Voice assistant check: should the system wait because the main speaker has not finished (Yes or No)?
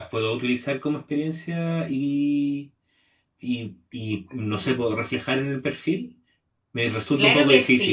No